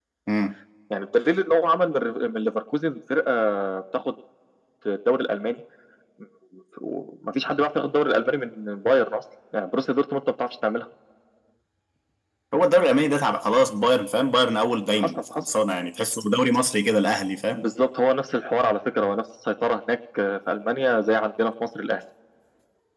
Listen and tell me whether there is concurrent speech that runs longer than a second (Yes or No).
No